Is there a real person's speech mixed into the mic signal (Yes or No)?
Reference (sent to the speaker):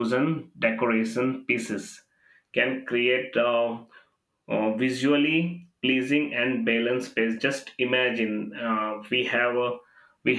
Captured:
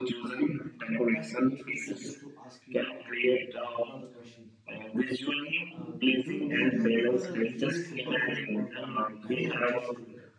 Yes